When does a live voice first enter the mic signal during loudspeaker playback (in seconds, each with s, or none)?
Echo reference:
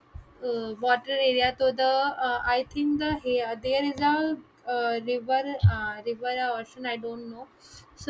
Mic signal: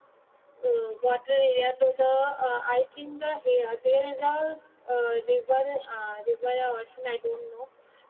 none